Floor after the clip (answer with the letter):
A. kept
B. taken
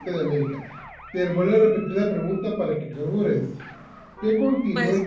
A